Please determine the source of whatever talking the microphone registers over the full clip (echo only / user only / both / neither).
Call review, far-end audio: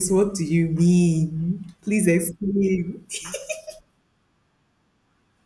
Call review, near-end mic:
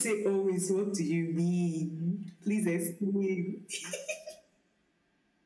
echo only